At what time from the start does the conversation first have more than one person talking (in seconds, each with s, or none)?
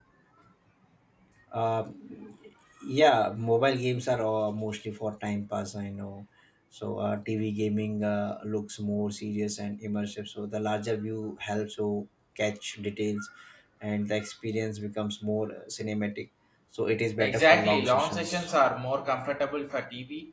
17.2 s